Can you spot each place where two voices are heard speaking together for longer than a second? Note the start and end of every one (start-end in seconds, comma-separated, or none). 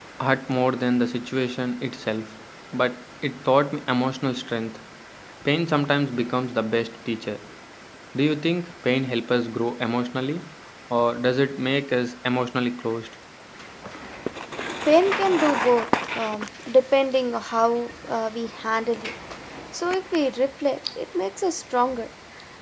none